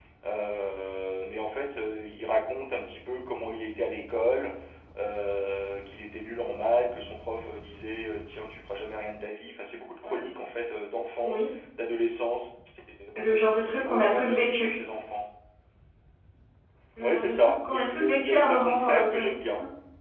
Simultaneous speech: Yes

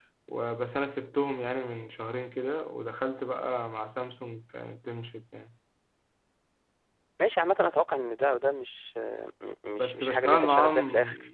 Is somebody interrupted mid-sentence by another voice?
Yes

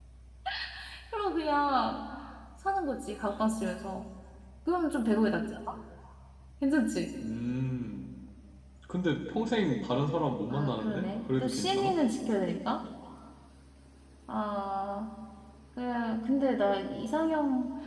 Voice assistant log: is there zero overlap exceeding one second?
No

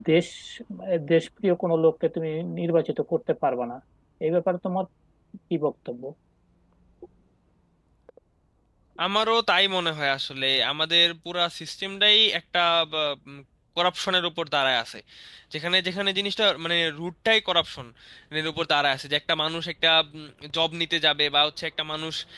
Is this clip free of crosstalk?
Yes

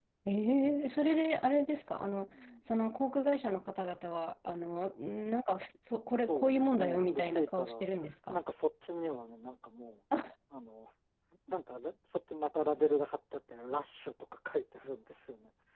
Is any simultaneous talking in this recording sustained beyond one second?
Yes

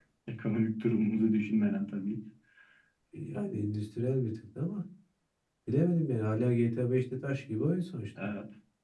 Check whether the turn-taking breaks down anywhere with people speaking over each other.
No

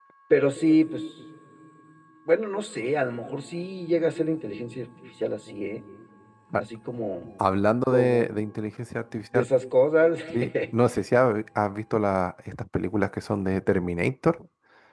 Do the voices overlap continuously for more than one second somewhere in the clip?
No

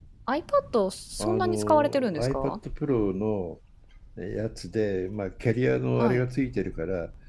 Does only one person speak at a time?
No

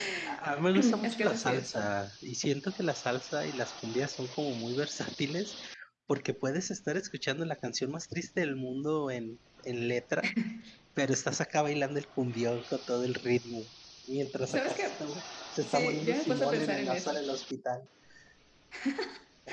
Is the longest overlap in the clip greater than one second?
Yes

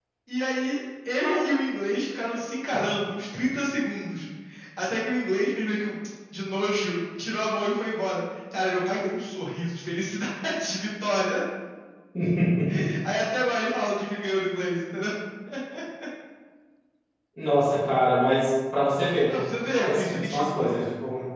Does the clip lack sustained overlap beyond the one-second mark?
No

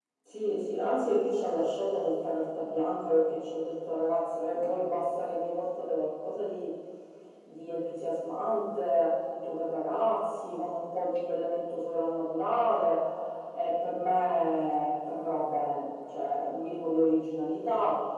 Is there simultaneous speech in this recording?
No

